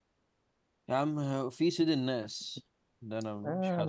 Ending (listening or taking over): taking over